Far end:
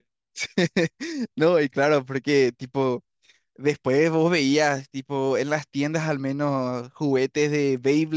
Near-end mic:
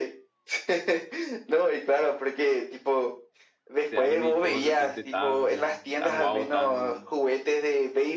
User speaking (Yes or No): Yes